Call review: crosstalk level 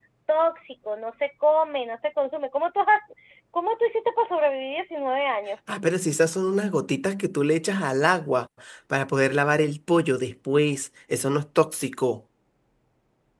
none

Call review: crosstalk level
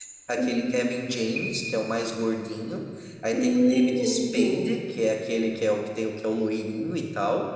present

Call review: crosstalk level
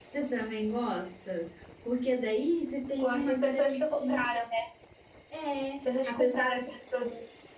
present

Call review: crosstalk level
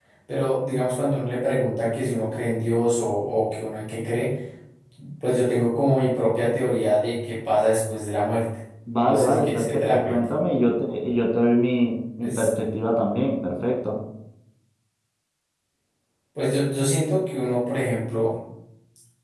present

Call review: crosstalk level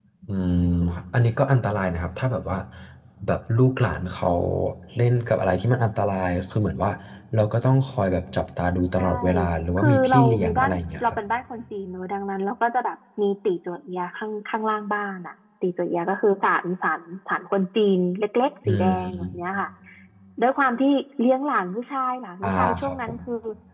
present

